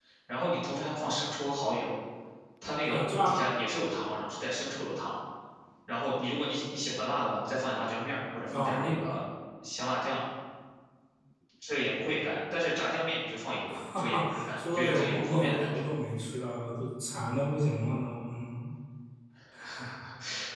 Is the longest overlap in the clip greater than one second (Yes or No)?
Yes